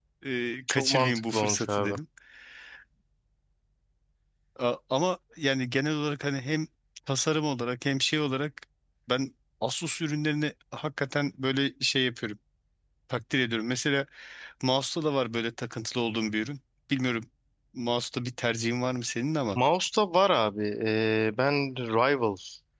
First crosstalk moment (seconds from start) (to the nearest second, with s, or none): 1 s